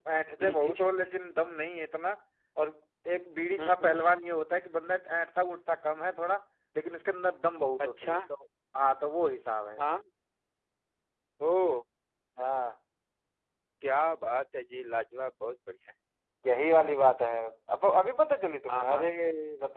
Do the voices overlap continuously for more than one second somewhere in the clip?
No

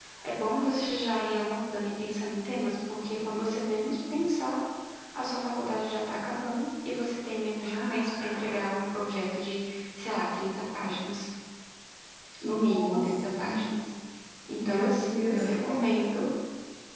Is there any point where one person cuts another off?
Yes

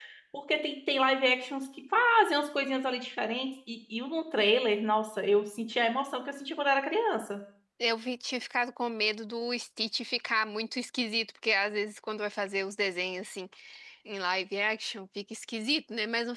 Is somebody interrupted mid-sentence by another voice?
No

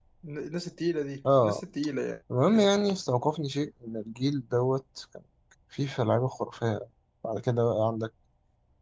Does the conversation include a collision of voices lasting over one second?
No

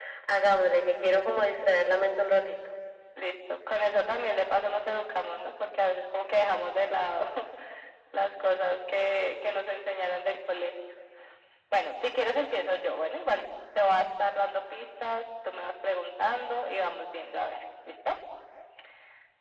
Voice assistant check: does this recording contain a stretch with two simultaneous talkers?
No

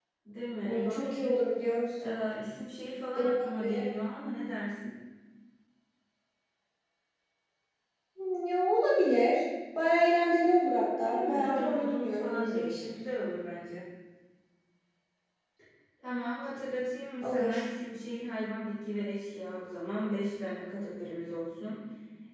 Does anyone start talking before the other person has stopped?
Yes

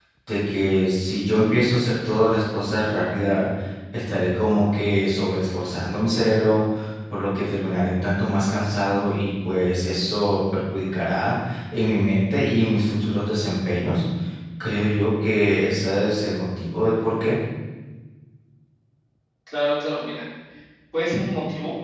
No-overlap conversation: Yes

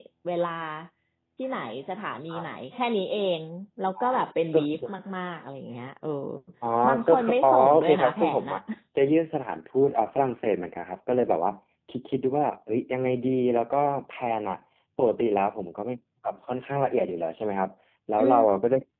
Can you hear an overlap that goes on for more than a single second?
Yes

